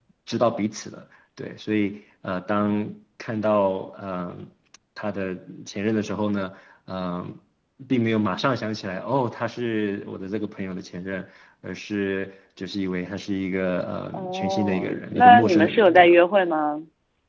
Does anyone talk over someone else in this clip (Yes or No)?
Yes